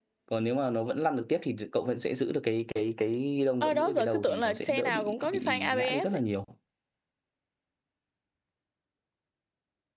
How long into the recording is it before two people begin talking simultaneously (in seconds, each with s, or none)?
3.6 s